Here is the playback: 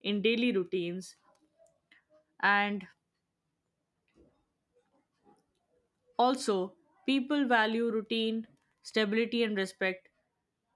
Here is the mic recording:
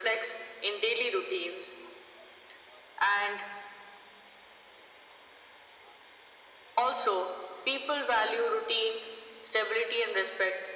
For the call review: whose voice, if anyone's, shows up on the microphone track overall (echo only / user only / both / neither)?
echo only